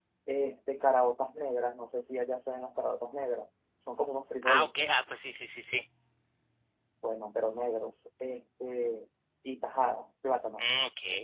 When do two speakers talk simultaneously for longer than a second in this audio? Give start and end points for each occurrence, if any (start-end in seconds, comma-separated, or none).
none